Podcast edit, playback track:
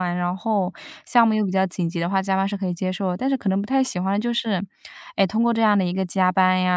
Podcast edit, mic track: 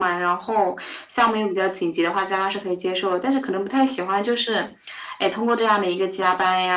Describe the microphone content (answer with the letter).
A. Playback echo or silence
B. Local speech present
A